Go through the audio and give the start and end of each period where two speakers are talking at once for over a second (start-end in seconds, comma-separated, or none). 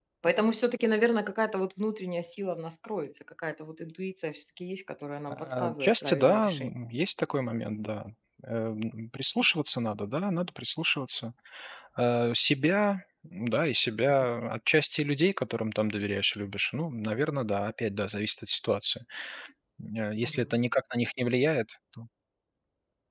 5.3-6.7